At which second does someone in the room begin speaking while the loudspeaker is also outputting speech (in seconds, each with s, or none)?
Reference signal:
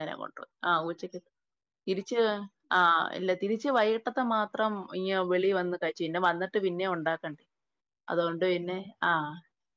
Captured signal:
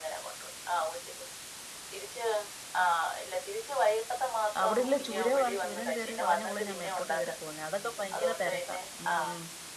4.6 s